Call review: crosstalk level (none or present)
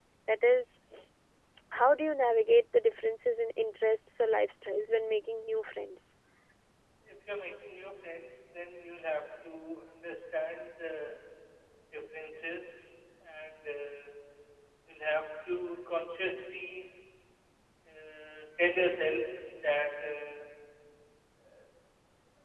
none